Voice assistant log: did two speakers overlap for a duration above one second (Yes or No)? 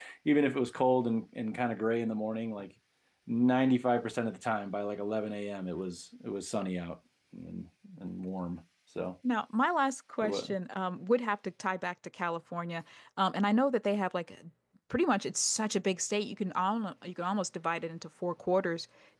No